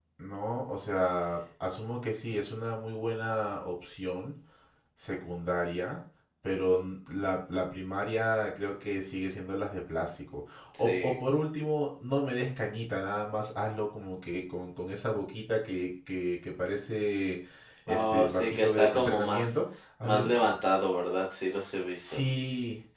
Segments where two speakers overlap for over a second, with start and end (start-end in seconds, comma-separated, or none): 17.9-19.5